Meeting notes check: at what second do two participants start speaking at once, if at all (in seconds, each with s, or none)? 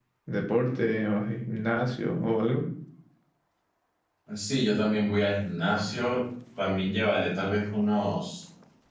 none